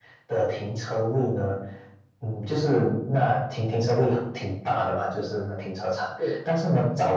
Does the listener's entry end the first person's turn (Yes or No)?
No